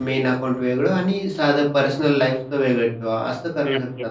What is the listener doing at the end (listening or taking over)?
taking over